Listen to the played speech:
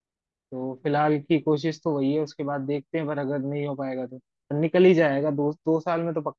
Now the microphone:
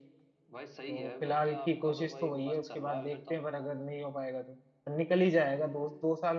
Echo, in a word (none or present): present